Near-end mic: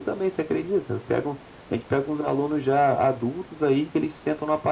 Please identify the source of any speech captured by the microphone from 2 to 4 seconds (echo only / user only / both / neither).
echo only